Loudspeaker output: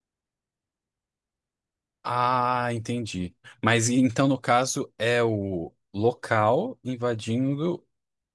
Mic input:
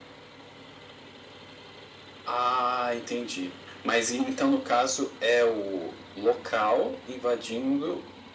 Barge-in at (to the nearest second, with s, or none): none